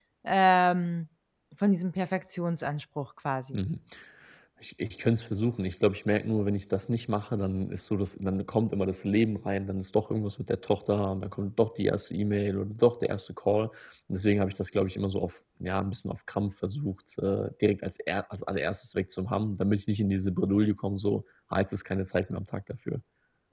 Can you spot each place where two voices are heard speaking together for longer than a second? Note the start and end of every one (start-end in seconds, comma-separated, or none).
none